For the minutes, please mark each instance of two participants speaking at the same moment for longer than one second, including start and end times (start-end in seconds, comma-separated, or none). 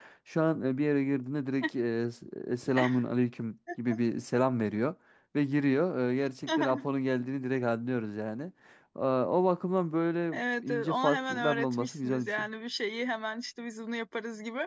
10.3-12.5